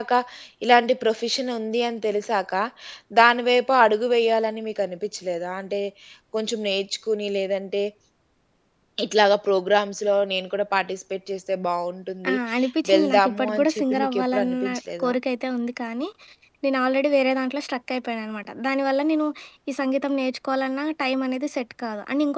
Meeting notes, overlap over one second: present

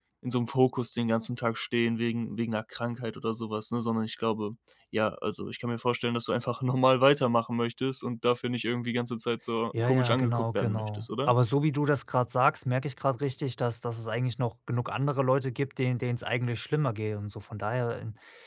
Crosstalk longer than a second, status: present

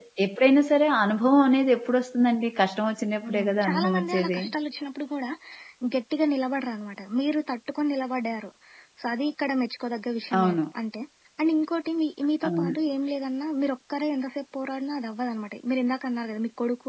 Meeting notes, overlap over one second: present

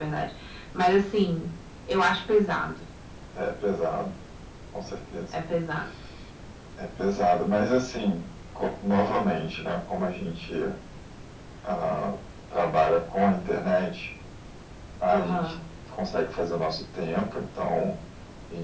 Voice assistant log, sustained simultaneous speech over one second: none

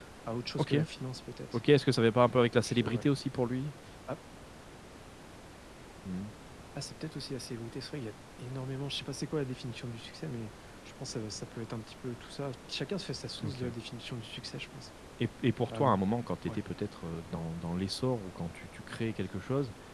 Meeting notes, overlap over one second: none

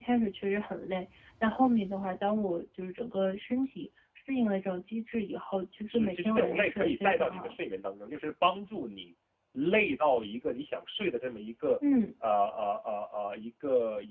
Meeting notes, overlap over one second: present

